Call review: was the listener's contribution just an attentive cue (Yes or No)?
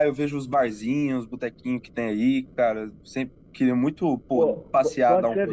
No